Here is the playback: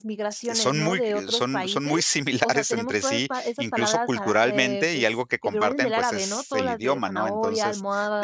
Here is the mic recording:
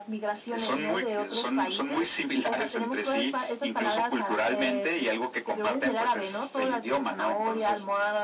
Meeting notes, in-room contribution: none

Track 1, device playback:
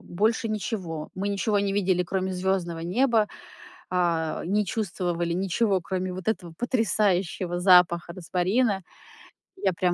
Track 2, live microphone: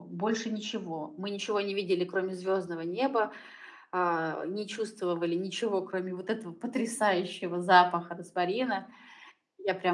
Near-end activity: none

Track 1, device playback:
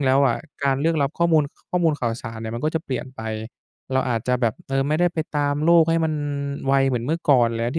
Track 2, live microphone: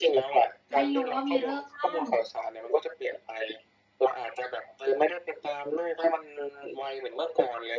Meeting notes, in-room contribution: present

